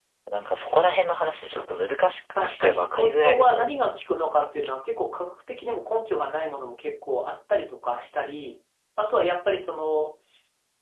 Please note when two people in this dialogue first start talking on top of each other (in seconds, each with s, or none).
2.4 s